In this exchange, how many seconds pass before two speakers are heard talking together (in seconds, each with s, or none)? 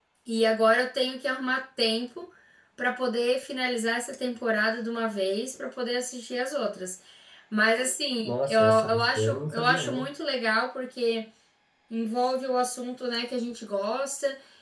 8.2 s